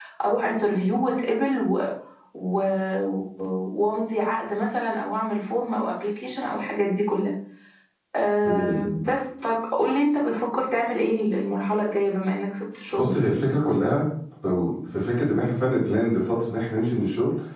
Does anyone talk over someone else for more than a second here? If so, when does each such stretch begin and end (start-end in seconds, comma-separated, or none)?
none